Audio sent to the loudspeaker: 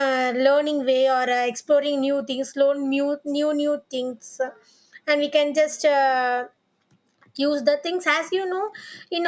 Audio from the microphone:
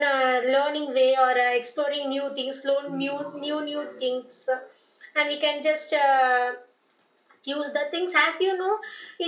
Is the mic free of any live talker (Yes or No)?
No